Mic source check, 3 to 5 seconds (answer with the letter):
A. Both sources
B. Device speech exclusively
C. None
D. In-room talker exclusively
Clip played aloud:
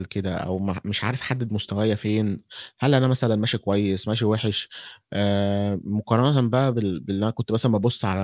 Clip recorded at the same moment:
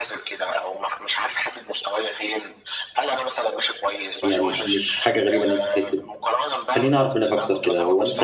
A